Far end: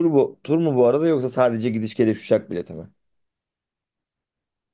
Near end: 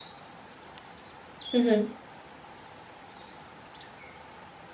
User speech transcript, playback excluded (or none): Hı hı.